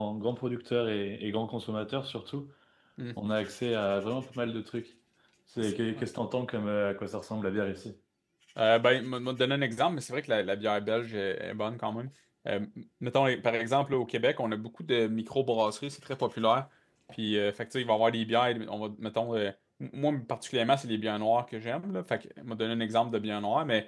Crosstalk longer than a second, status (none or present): none